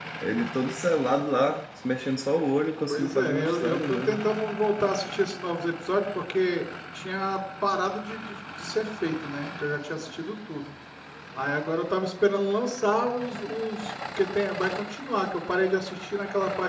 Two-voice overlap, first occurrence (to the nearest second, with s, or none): 3 s